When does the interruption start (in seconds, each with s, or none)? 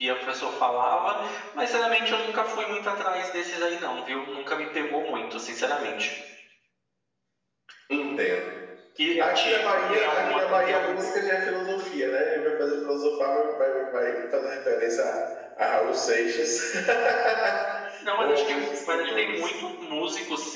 9.2 s